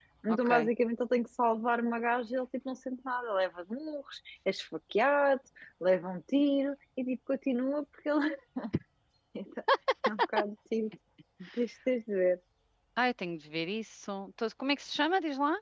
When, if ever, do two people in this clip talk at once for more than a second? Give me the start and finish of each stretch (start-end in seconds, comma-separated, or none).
none